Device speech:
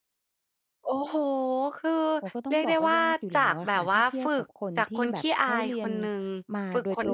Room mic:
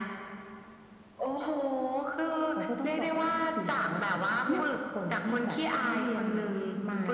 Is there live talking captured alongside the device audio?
Yes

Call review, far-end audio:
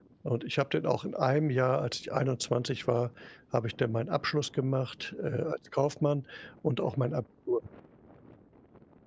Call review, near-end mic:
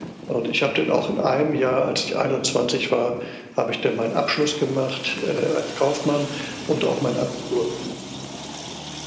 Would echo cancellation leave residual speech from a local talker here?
No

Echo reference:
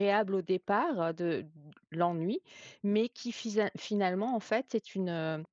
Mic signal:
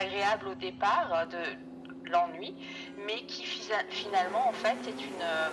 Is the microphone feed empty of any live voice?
Yes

